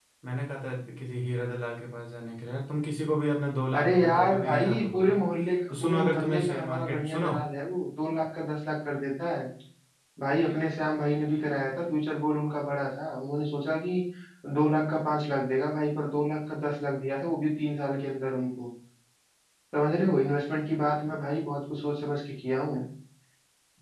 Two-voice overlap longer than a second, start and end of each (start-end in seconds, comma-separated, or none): 3.7-5.2, 5.7-7.3